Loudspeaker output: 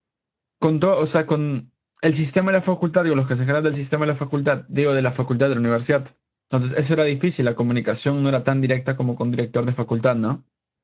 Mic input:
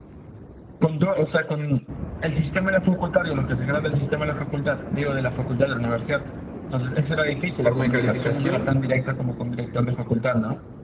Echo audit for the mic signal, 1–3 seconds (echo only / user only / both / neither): echo only